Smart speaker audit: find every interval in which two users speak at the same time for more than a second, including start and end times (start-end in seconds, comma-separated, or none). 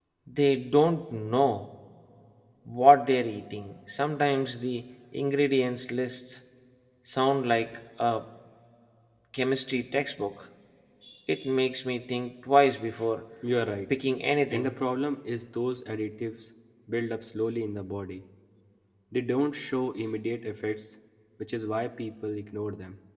none